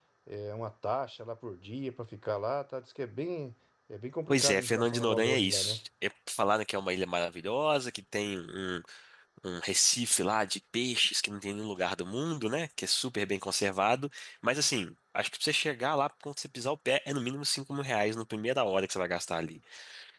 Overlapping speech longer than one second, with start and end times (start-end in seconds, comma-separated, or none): 4.3-5.8